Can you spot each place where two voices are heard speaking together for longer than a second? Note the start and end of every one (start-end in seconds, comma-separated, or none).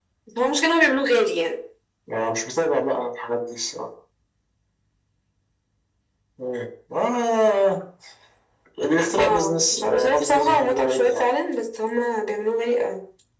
9.2-11.2